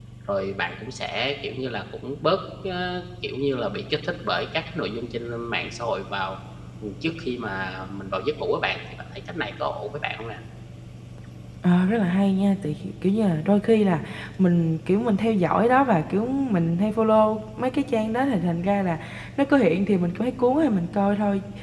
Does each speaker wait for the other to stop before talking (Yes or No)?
Yes